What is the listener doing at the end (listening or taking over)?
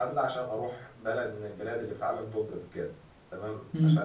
listening